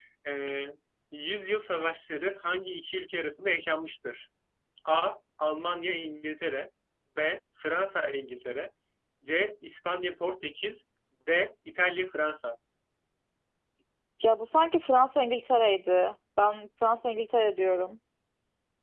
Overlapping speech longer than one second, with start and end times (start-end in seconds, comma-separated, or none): none